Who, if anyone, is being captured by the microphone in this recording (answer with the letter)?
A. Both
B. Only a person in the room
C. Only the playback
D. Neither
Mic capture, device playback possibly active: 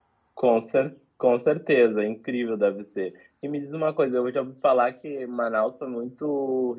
B